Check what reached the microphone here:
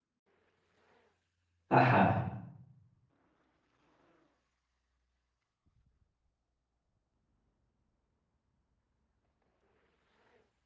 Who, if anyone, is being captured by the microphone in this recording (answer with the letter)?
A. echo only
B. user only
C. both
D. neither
B